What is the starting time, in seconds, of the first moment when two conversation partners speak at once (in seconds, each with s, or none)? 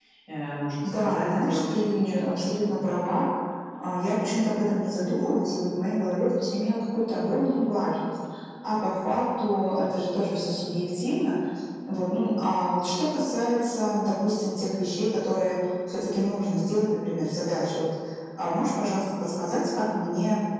0.8 s